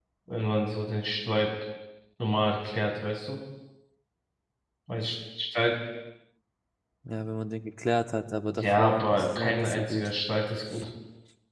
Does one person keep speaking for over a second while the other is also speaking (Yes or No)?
Yes